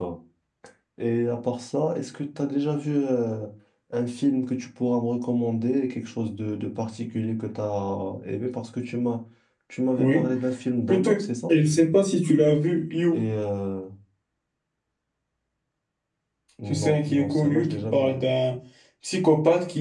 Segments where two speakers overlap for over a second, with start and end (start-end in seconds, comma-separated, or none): 16.7-18.2